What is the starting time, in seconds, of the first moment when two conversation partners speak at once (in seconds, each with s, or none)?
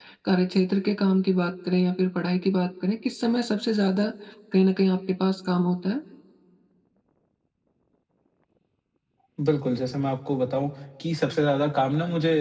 none